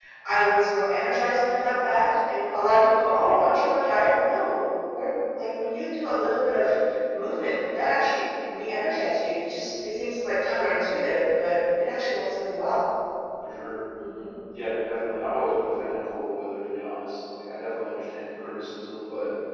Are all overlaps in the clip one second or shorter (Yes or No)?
Yes